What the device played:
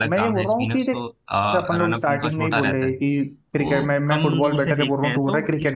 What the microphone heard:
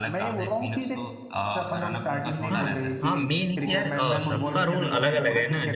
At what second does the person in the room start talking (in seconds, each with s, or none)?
2.5 s